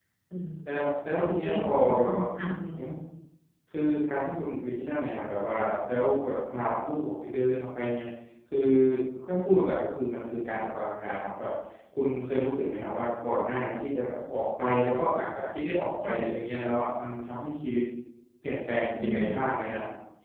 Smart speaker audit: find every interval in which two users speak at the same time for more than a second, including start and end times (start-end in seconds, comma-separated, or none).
1.4-2.9